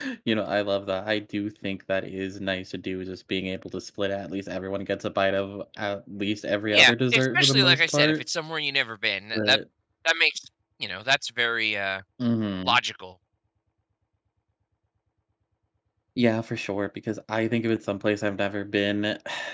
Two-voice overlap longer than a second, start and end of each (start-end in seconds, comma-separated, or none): 6.7-8.2